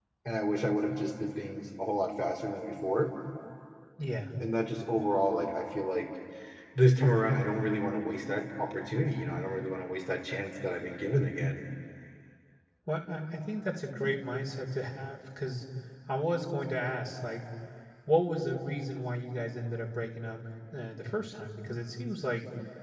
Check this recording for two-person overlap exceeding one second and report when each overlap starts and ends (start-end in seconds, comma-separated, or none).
none